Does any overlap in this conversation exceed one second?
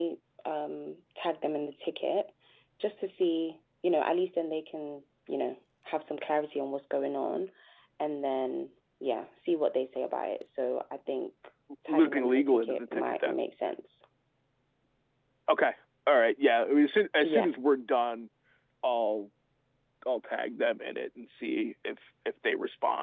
Yes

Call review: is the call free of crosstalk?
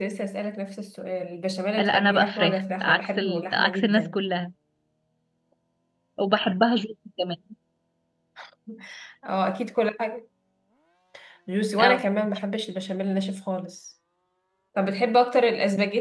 No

